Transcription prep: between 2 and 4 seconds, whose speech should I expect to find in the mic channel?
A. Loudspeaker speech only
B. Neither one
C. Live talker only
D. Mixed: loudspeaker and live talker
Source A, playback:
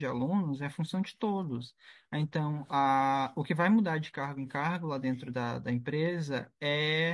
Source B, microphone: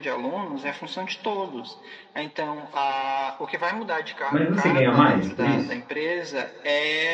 A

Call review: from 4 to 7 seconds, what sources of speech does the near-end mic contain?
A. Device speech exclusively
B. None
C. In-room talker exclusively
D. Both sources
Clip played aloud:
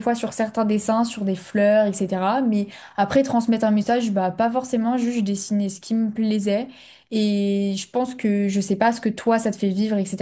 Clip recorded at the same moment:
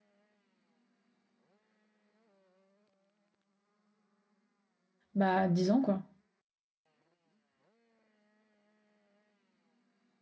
C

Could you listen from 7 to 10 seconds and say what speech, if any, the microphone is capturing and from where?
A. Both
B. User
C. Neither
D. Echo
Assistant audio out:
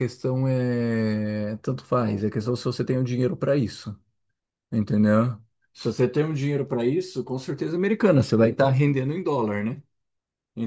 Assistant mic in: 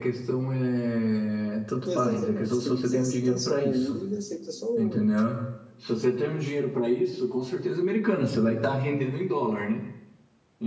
D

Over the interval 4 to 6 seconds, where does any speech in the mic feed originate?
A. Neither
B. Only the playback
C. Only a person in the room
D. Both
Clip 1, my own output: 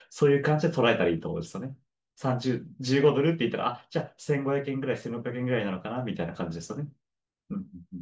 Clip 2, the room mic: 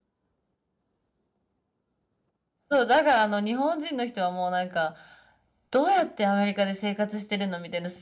C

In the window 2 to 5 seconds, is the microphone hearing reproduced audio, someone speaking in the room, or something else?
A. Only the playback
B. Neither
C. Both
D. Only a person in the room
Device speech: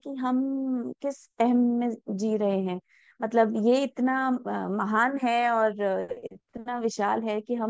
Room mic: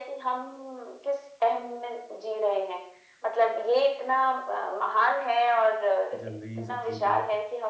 A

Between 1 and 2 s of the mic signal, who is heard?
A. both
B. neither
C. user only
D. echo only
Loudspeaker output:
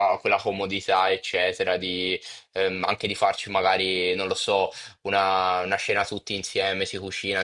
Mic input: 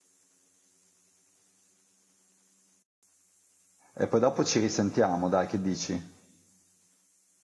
B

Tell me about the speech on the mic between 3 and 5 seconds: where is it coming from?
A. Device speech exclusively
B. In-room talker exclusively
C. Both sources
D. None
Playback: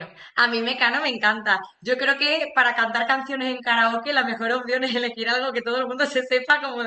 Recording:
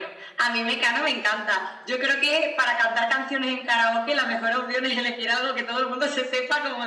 A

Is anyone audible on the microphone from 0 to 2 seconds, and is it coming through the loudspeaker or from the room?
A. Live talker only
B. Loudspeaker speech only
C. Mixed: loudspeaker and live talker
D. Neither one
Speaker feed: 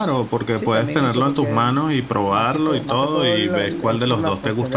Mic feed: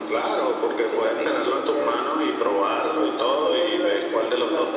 B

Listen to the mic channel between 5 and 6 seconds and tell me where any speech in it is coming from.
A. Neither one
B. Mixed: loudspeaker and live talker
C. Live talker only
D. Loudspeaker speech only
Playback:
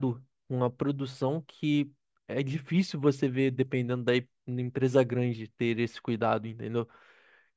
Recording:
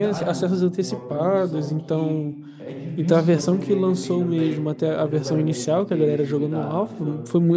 B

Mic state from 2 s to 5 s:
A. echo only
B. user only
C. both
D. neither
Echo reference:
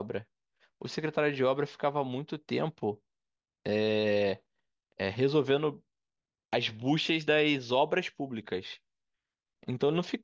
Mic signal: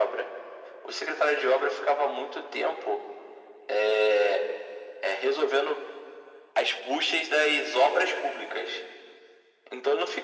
A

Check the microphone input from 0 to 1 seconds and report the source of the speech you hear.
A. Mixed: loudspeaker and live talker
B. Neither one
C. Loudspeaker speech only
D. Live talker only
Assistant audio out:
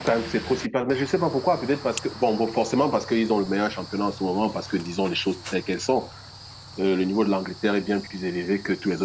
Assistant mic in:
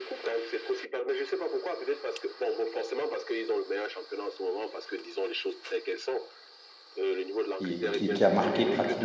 C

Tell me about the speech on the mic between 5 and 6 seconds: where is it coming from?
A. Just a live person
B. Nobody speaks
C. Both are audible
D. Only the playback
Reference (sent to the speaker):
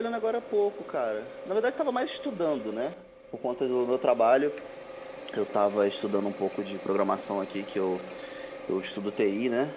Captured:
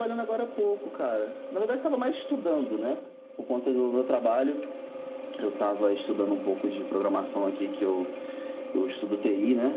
D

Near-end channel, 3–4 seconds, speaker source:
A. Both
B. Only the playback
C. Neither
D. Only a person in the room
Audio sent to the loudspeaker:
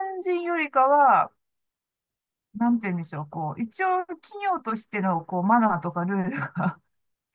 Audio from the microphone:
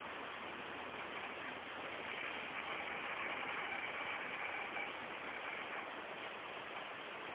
C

